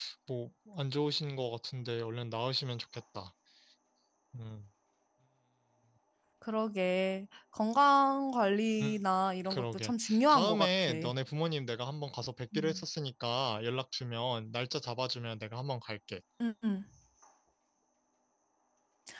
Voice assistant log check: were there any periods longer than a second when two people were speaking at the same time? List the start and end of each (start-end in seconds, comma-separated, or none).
9.5-10.9